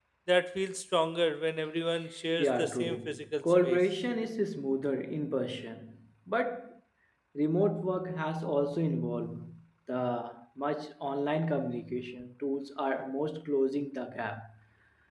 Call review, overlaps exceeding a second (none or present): present